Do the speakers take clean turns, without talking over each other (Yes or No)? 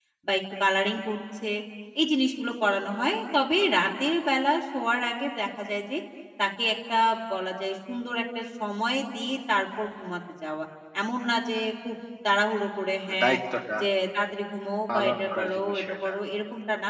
No